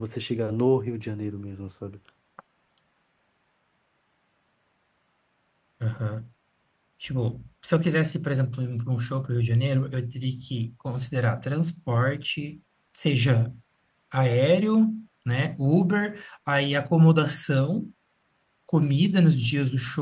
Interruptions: none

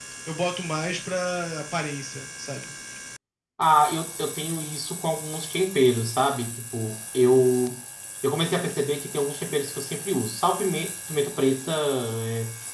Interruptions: none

